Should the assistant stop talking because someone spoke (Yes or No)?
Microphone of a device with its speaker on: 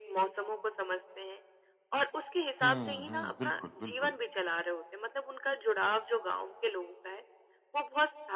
Yes